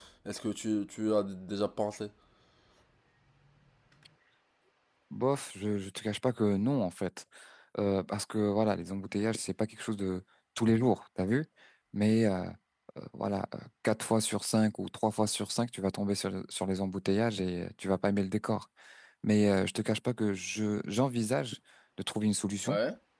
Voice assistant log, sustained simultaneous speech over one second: none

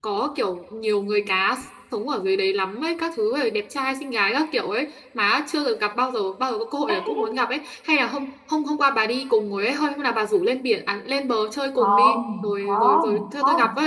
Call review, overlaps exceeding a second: present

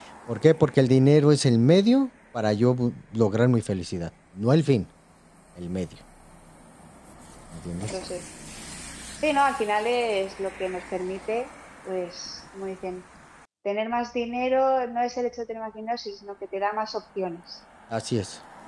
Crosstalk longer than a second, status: none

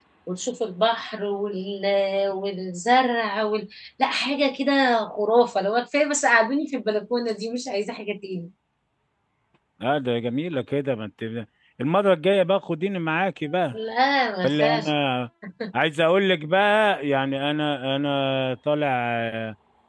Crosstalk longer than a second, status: none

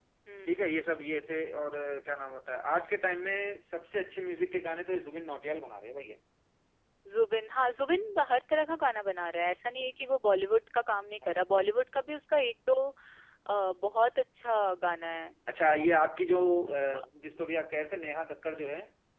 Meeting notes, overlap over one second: none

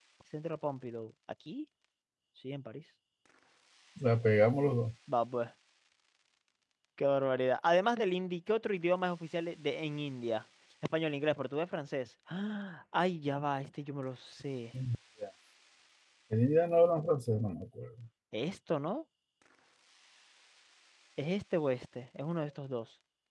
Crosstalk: none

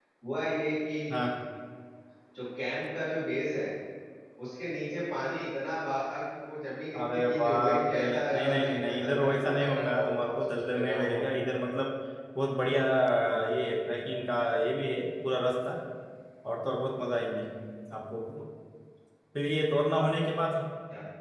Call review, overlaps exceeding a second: present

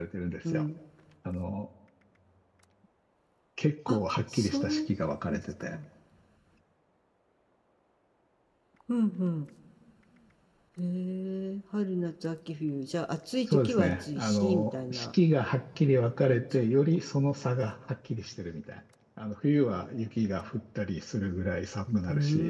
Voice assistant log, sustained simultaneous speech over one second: present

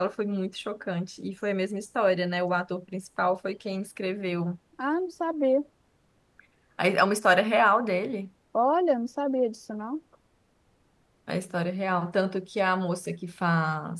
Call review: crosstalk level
none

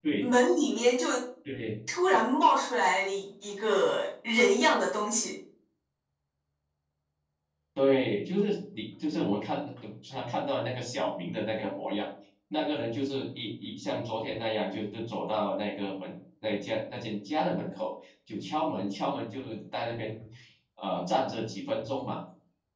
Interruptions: none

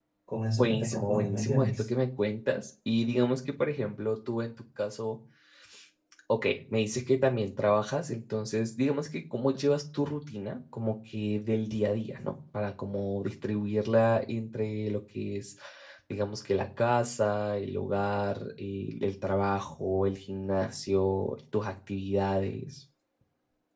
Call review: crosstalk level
present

